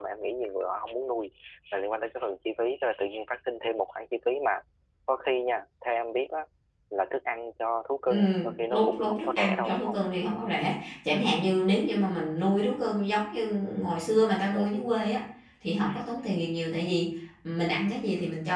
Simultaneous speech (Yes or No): Yes